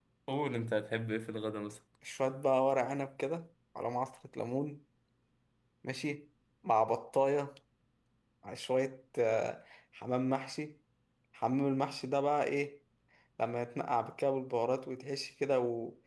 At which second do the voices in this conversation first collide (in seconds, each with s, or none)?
none